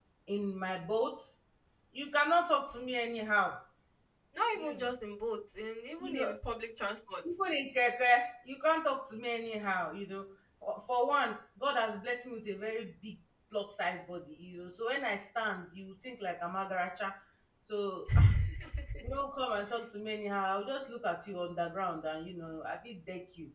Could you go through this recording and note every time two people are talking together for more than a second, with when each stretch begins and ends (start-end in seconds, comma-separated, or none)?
none